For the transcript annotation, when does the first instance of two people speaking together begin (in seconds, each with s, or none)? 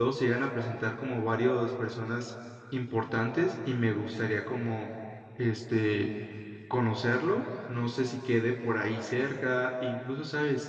none